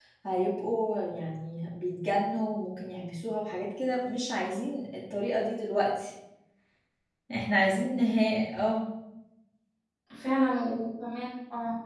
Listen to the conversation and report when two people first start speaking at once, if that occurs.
none

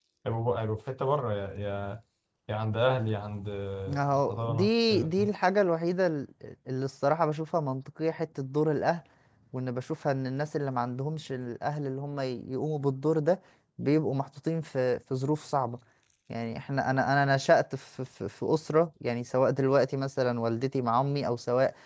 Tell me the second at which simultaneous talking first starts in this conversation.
3.9 s

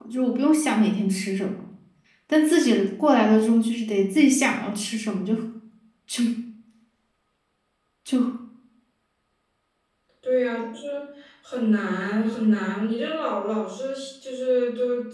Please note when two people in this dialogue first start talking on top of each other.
none

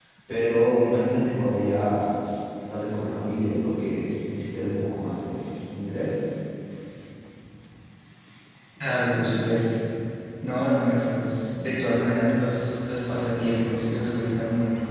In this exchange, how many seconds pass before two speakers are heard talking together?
none

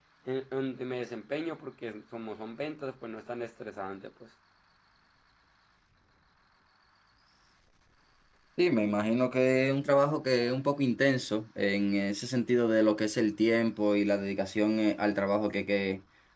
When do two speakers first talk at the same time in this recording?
none

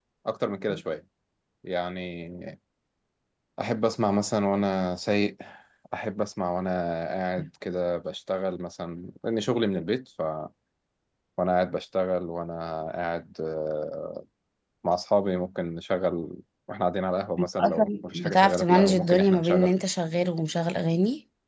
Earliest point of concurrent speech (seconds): 17.4 s

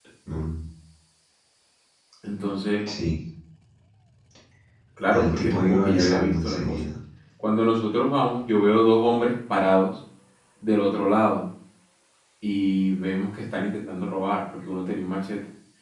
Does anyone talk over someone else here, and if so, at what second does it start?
5.1 s

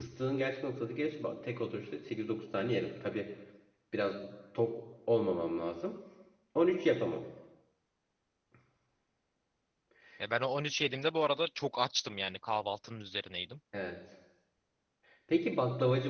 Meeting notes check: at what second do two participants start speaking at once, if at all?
none

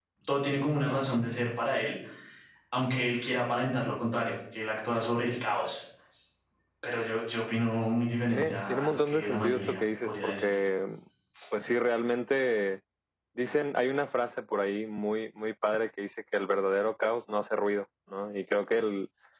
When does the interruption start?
8.3 s

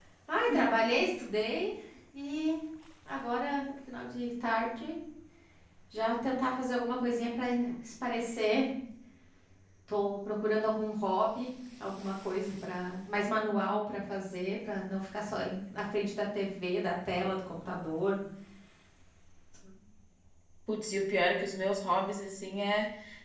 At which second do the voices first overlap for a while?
none

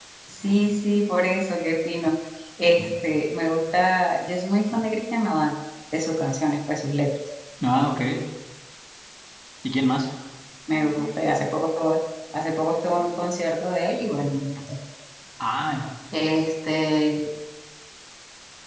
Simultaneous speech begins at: none

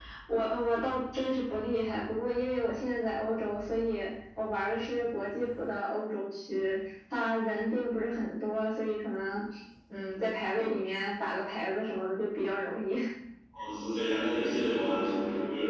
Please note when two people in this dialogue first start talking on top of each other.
none

